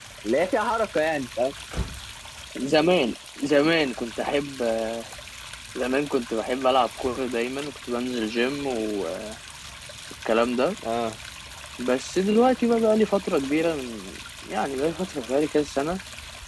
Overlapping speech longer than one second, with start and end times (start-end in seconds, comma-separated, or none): none